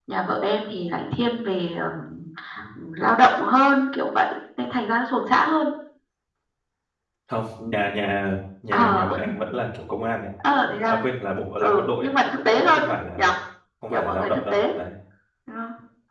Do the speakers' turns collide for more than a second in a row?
Yes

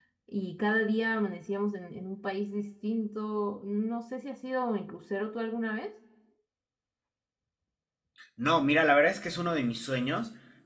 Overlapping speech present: No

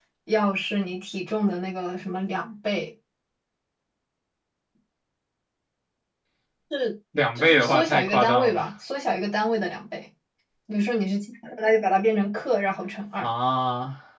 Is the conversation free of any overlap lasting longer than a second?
No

